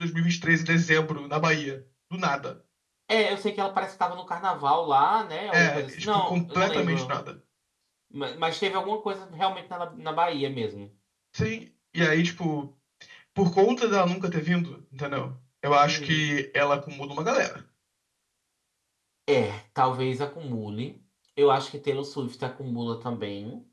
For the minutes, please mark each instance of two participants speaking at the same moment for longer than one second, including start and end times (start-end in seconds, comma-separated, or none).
5.5-7.1